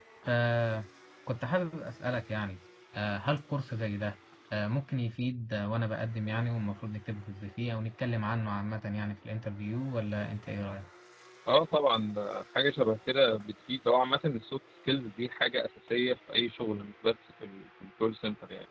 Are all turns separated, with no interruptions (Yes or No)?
Yes